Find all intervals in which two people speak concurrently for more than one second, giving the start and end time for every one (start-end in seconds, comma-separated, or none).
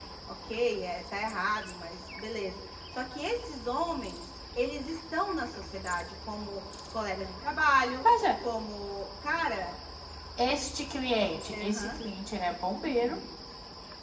none